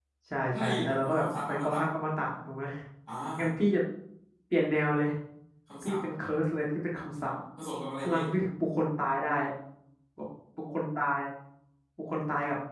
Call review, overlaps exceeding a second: present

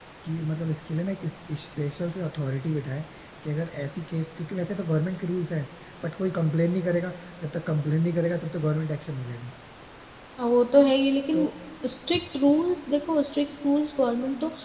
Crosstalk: none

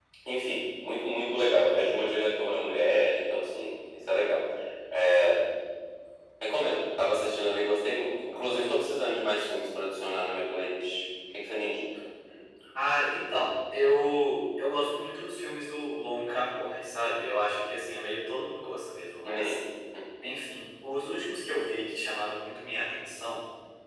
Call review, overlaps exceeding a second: none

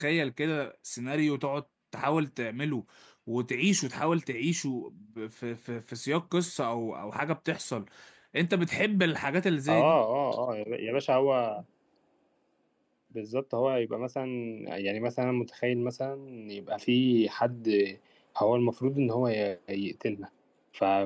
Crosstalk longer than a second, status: none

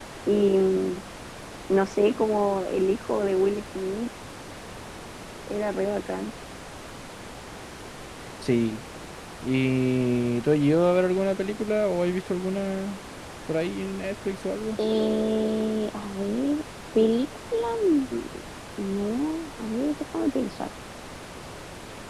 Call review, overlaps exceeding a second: none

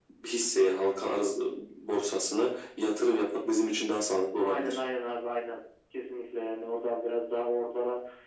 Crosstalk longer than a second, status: none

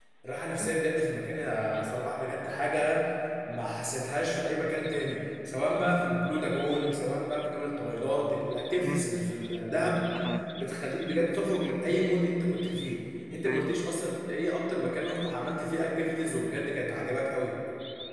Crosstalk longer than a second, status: none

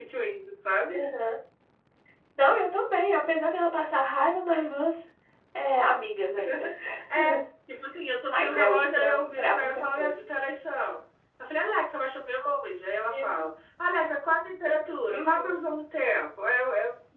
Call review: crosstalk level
present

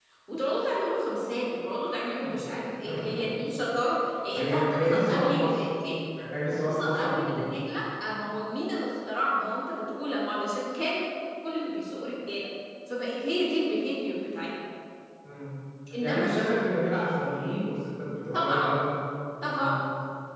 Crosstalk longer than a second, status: present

